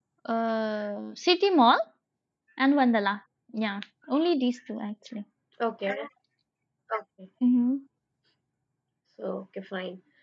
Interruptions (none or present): none